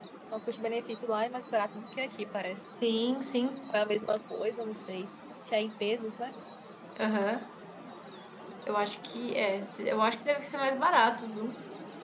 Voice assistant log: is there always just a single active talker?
Yes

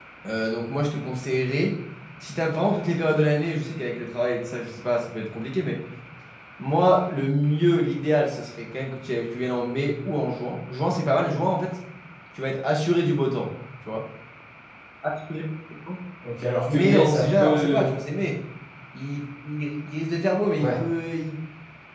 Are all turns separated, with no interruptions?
No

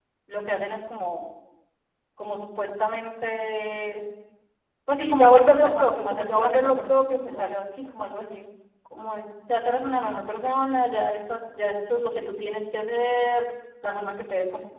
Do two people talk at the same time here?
Yes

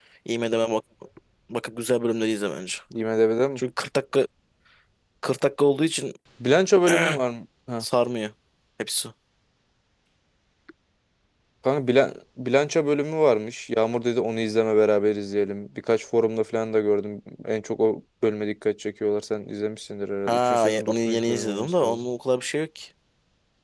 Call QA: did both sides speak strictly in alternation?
No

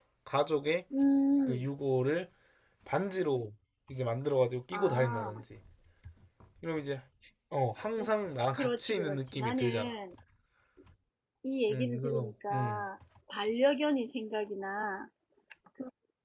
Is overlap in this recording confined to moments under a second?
No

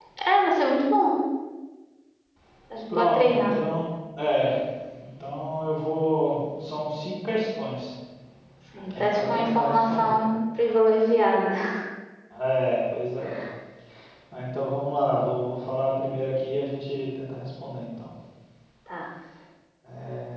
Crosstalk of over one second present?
Yes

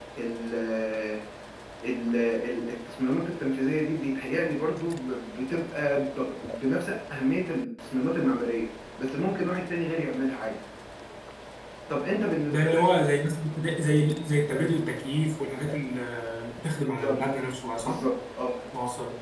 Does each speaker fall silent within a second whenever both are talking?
Yes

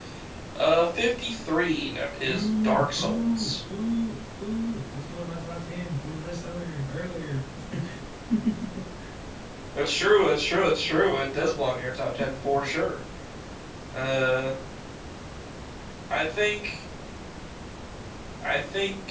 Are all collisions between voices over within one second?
No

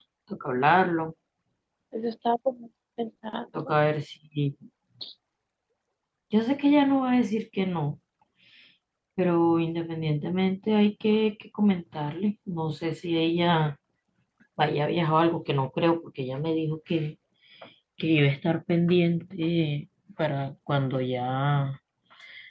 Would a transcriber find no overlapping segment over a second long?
Yes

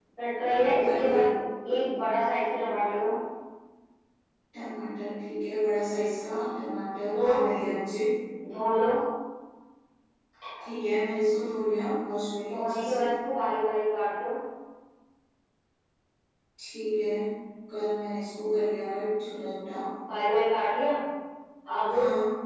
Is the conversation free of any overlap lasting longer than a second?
Yes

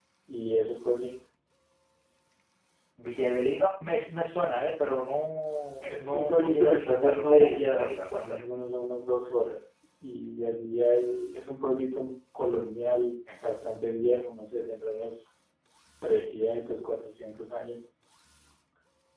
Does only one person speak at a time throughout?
No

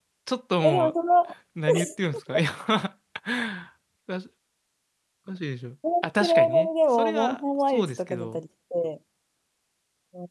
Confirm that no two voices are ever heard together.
No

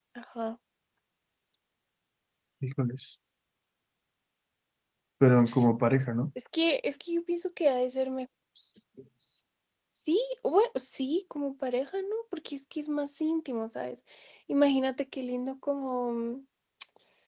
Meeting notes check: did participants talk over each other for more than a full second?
No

